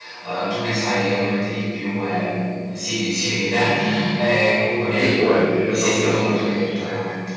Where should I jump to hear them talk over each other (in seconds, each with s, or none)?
5.0 s